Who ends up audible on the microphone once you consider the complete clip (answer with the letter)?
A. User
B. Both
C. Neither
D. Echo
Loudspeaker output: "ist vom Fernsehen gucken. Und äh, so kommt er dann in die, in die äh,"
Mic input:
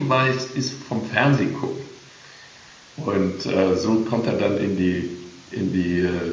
D